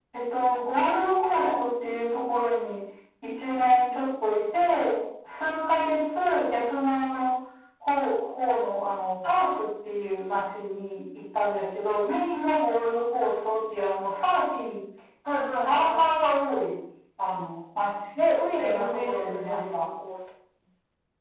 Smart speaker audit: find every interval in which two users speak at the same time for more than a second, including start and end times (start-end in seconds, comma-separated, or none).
18.1-19.8